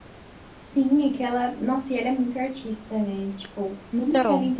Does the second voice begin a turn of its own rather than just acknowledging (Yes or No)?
No